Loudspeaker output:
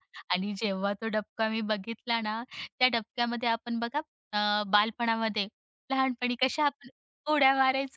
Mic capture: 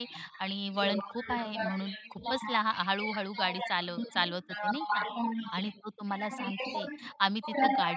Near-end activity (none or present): present